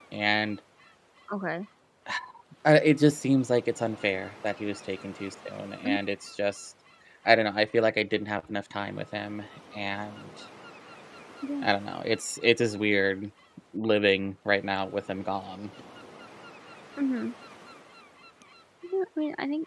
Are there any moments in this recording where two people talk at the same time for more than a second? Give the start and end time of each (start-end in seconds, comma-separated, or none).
none